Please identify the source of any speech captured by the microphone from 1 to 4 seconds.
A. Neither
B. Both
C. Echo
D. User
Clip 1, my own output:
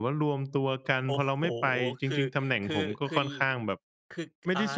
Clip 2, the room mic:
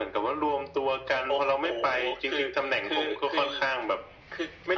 C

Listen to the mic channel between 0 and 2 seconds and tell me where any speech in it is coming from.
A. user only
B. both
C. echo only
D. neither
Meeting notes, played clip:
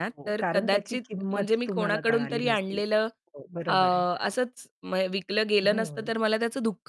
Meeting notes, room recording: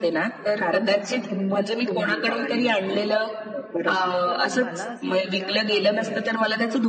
C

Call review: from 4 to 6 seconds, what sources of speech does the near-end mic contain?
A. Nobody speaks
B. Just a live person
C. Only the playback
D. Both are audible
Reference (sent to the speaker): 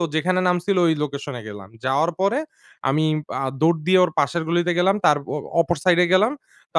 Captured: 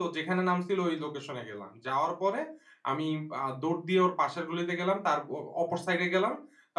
C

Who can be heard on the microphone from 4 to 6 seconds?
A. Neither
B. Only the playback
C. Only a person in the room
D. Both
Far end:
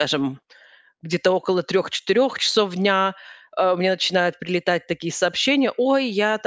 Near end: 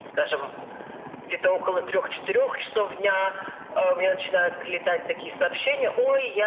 B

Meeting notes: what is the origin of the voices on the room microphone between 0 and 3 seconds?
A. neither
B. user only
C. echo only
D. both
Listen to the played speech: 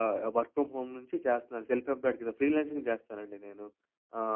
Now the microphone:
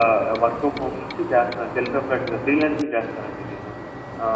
C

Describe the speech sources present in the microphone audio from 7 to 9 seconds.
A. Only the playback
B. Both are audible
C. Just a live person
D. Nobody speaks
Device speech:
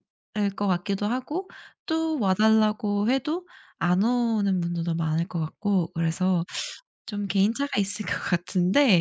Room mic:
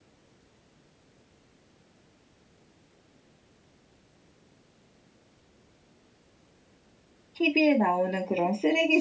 C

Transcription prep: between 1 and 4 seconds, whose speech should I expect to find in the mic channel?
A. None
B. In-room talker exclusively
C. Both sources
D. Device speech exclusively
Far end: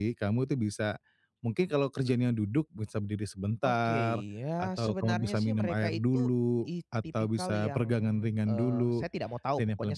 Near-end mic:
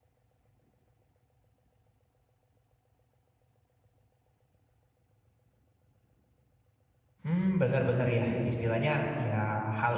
A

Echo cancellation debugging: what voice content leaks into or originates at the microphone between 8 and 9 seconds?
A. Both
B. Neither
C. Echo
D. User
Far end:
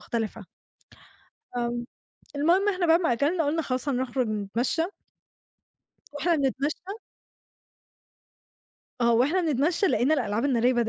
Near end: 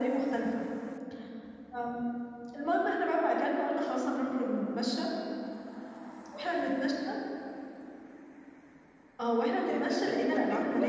B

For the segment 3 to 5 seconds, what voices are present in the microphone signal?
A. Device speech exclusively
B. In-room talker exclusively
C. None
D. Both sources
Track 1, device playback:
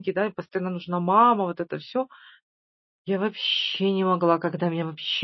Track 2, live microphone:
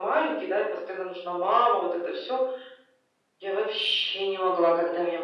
A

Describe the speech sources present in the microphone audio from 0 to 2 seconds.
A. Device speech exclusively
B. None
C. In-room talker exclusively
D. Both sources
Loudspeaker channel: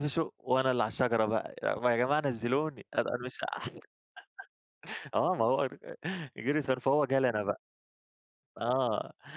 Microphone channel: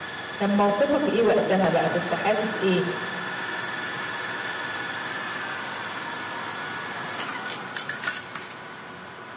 C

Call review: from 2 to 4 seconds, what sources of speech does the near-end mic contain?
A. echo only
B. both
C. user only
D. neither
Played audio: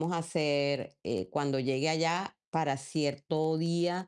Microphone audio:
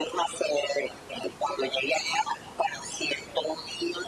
A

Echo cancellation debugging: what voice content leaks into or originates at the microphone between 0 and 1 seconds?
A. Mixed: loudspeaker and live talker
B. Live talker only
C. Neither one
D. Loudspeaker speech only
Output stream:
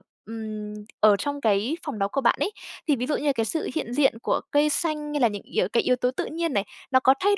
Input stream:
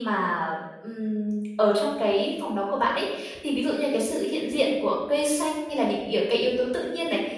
D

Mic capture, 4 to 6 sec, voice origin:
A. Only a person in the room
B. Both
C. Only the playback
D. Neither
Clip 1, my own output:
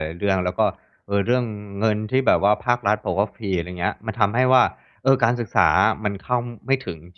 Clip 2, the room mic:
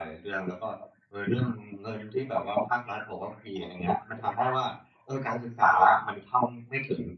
C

